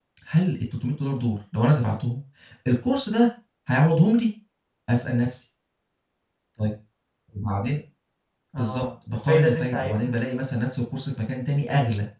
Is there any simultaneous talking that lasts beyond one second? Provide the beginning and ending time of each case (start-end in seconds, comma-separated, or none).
8.6-10.2